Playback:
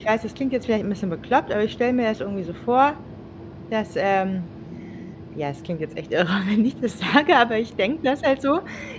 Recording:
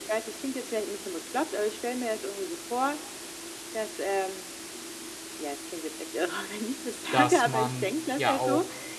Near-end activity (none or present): present